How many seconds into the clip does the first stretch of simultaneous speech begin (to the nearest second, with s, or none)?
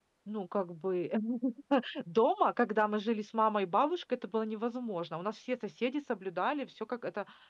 none